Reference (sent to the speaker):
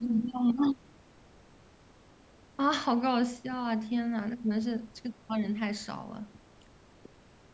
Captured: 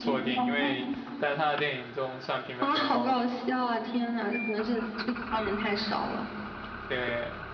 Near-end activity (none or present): present